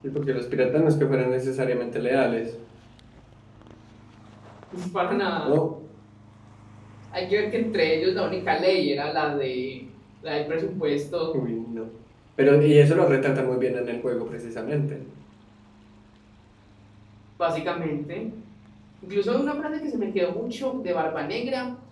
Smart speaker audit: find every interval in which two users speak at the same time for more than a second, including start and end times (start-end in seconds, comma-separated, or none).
none